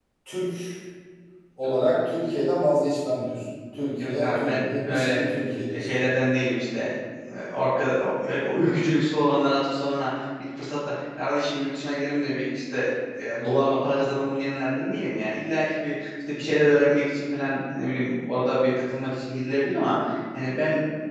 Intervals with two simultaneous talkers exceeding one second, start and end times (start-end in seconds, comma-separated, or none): 4.0-5.2